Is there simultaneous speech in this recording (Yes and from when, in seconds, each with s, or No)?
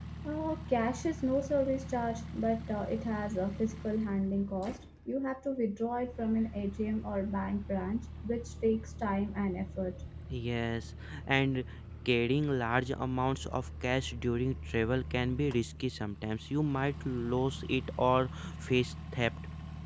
No